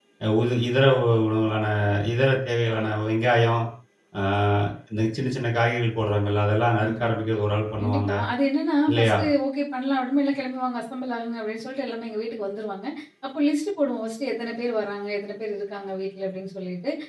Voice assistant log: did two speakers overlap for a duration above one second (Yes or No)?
No